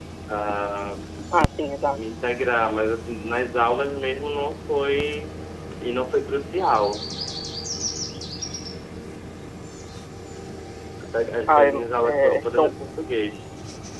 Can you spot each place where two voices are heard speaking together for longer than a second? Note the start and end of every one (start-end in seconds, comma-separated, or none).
11.5-12.7